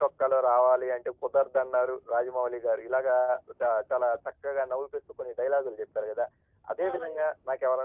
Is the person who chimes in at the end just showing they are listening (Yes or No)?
Yes